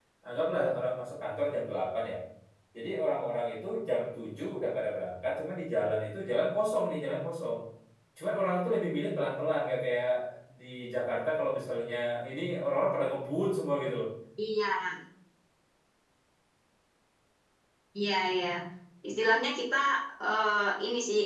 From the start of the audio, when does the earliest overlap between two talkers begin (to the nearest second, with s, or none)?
none